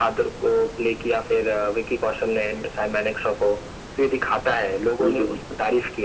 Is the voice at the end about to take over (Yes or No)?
No